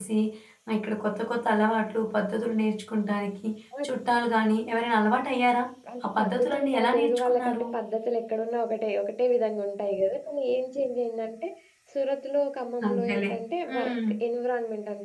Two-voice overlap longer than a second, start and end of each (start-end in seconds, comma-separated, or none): 6.0-7.6